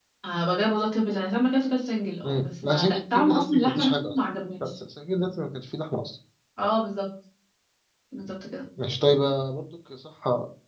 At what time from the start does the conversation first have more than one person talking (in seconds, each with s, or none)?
2.2 s